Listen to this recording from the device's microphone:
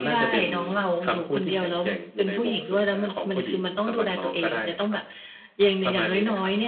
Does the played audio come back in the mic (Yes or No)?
Yes